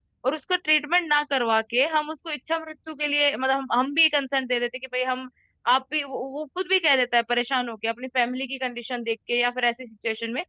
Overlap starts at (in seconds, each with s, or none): none